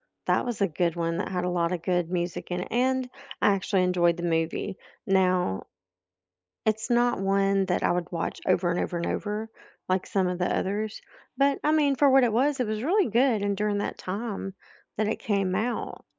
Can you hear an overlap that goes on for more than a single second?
No

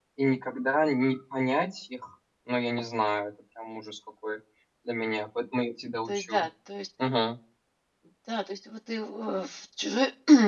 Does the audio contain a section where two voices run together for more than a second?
No

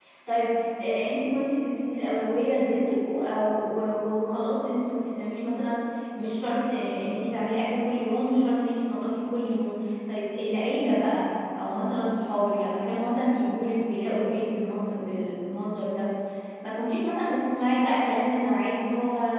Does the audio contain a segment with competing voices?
No

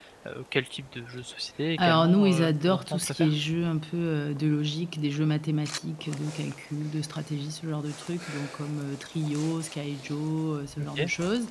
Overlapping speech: Yes, from 1.8 s

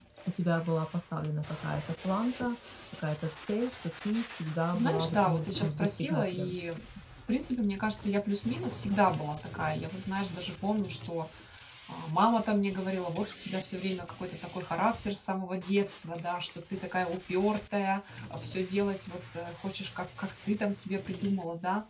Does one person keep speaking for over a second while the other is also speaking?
Yes, from 4.7 s

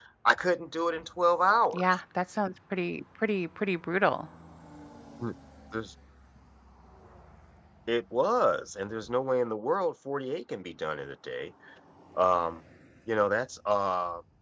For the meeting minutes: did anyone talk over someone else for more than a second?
No

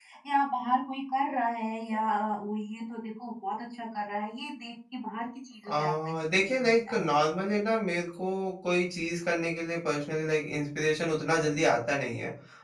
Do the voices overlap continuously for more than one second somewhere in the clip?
Yes, from 5.7 s

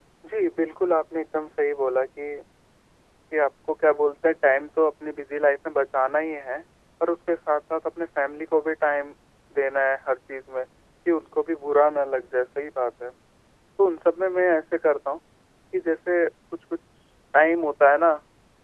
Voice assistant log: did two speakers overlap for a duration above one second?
No

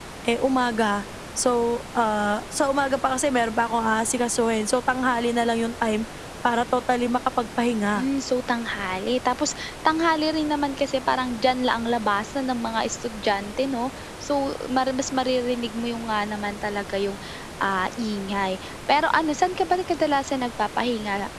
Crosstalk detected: No

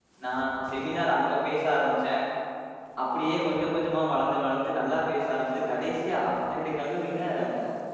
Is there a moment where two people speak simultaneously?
No

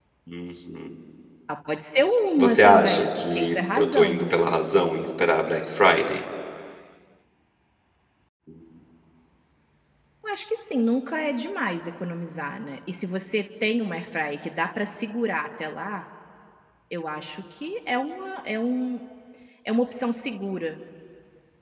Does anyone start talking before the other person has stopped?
Yes, from 2.4 s

